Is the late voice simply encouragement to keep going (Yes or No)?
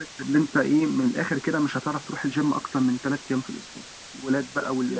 Yes